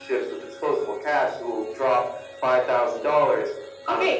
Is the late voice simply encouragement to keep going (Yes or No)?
No